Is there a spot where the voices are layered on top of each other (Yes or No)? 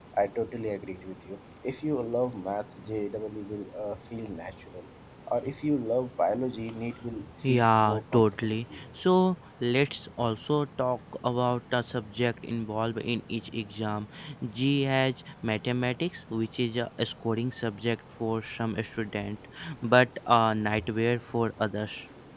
Yes